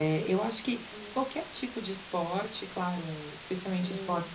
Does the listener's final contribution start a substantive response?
No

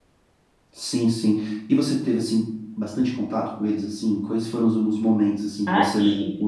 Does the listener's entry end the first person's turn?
Yes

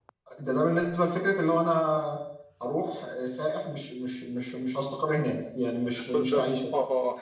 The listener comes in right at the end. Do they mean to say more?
Yes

